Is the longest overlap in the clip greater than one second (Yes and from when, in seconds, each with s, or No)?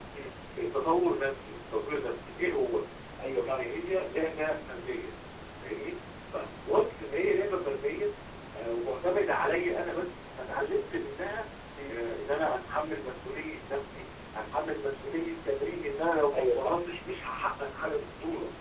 No